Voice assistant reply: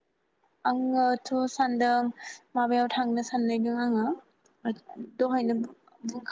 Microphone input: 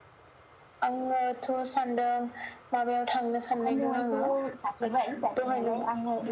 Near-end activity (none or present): present